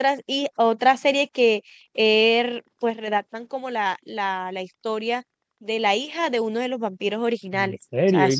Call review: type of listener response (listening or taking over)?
taking over